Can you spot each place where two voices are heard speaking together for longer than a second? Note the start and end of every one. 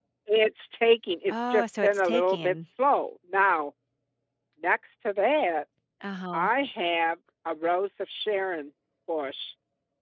1.3-2.5

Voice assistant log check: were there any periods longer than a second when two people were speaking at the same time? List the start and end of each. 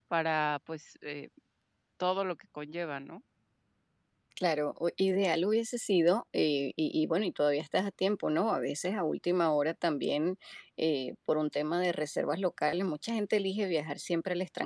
none

